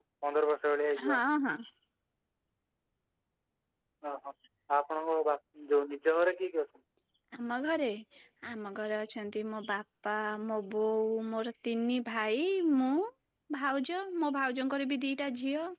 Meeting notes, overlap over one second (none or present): none